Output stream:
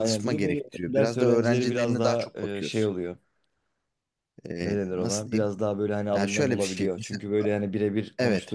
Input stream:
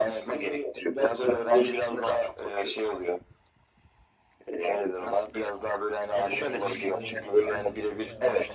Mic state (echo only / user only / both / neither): both